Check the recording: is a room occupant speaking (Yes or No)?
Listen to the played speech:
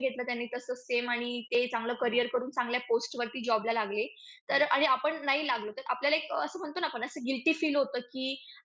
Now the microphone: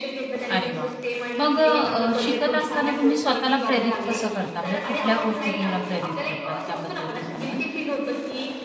Yes